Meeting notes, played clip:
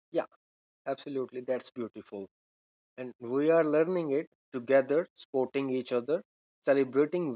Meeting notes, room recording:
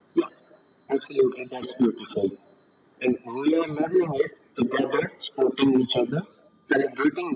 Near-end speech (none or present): none